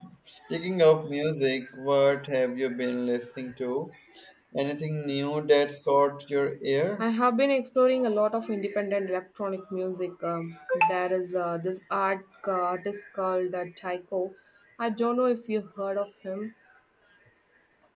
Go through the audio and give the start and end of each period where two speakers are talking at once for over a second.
none

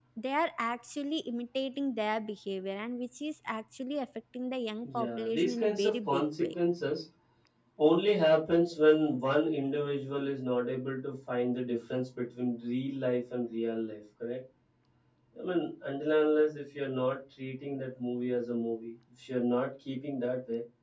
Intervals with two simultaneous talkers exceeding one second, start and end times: 4.8-6.5

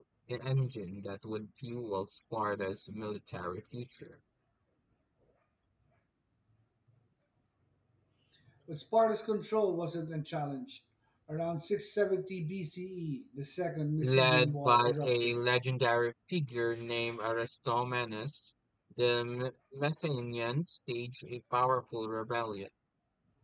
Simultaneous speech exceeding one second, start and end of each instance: 14.0-15.4

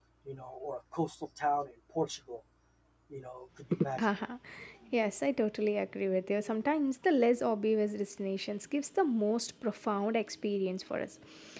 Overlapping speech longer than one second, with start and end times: none

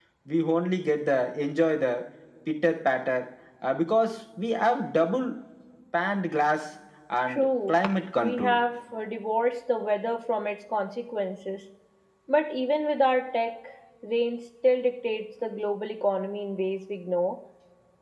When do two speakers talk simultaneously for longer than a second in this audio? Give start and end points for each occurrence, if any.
7.3-8.6

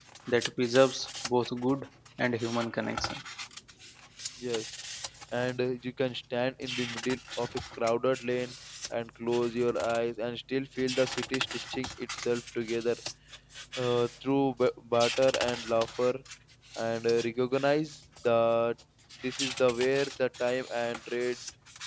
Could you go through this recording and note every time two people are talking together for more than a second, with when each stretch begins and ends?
none

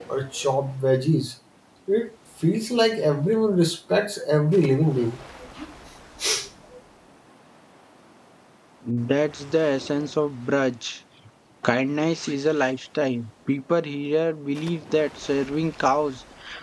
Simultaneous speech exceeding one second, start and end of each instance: none

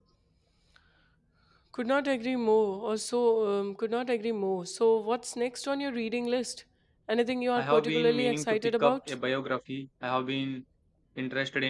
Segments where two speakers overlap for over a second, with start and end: 7.6-9.0

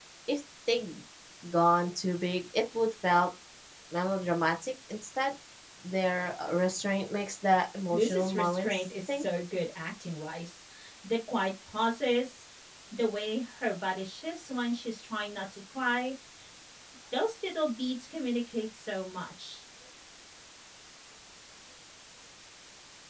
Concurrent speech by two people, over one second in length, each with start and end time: 7.9-9.2

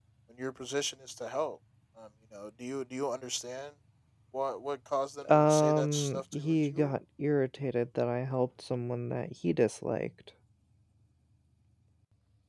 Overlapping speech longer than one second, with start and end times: 5.3-6.9

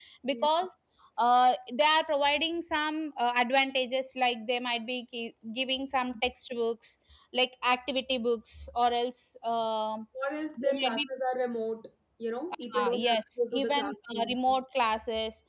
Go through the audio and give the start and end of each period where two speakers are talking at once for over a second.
12.8-14.4

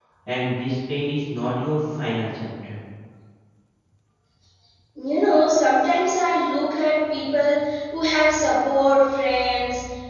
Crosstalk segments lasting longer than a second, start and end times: none

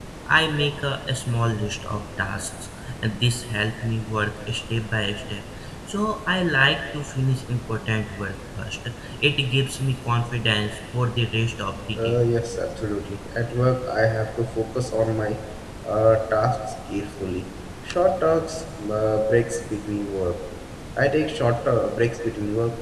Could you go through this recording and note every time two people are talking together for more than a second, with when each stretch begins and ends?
none

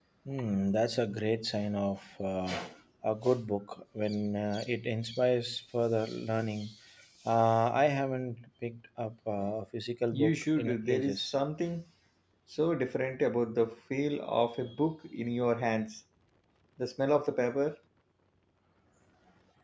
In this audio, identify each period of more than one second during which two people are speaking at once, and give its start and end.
10.1-11.3

